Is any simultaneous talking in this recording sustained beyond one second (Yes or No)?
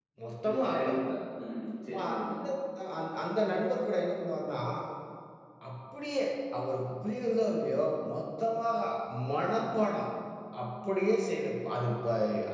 No